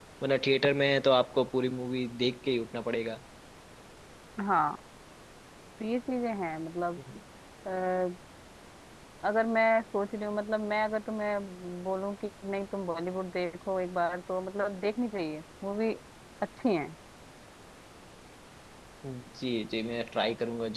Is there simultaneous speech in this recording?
No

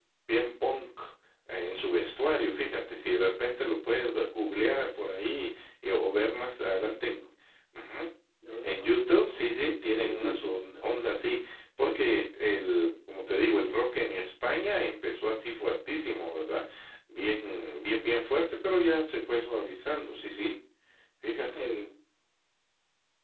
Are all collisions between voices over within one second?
No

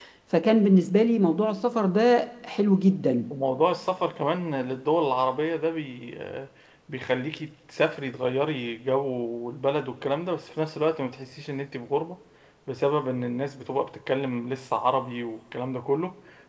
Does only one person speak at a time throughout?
Yes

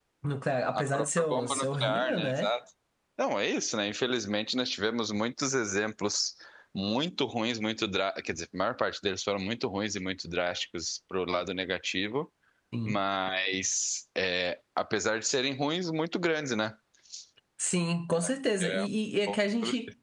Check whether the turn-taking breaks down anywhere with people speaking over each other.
Yes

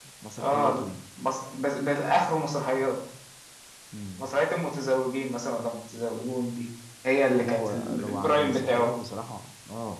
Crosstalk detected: Yes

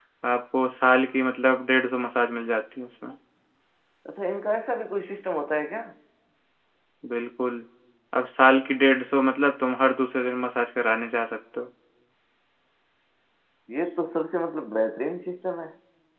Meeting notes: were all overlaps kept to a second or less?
Yes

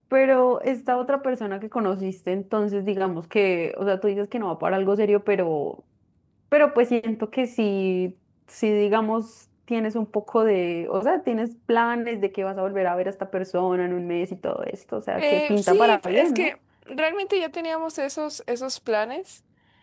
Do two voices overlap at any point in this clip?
Yes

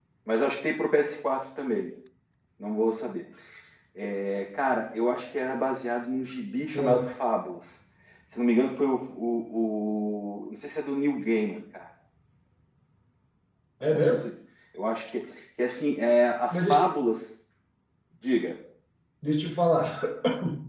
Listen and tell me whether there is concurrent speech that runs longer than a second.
No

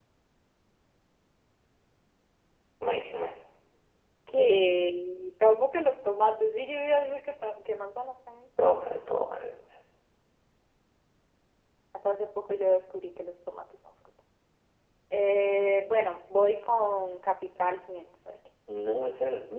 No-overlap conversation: Yes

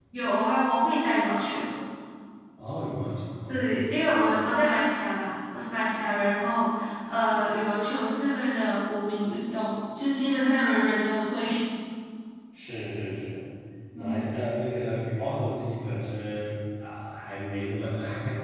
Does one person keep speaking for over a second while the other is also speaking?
No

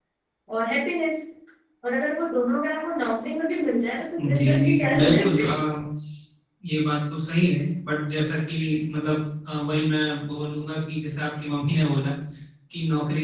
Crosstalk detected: Yes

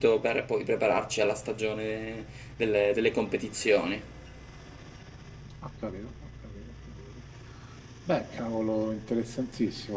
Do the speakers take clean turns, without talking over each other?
Yes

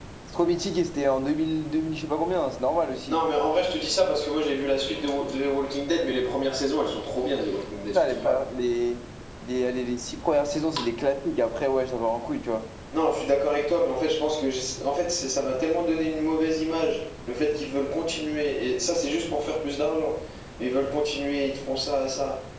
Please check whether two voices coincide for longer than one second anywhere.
No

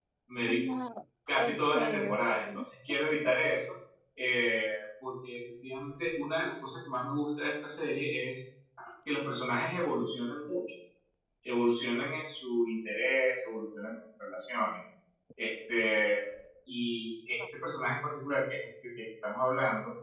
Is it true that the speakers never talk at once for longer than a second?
No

